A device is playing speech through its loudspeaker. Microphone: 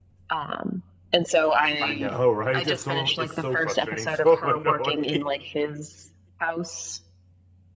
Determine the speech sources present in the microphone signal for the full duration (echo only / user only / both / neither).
both